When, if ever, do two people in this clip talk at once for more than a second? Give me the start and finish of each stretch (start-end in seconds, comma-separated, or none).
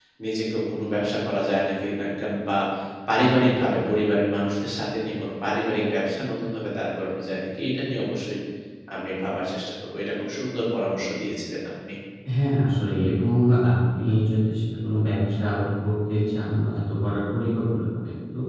none